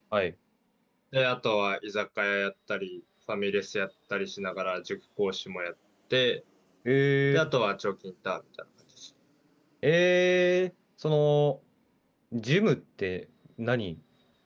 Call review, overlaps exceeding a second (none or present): none